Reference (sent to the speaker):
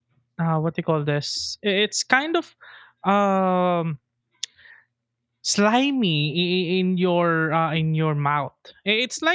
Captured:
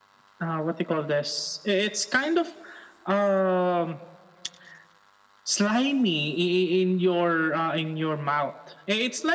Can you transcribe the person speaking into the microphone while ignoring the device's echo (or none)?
none